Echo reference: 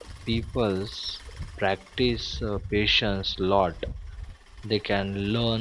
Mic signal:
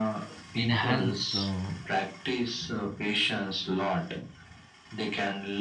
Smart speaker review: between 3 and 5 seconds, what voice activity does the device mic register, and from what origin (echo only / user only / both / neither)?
echo only